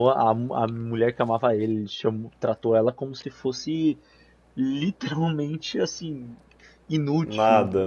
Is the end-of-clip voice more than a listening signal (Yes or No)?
No